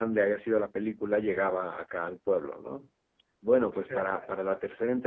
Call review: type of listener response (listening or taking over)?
listening